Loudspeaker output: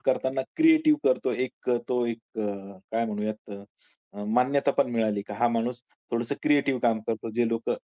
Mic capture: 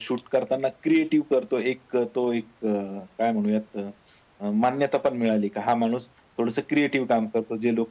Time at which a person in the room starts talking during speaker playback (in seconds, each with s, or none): none